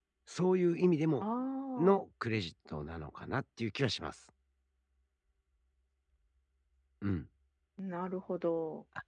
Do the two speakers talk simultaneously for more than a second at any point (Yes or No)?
No